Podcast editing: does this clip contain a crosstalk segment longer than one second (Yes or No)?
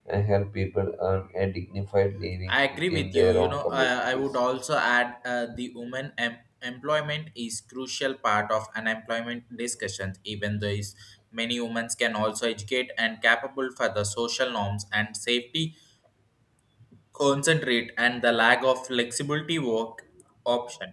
Yes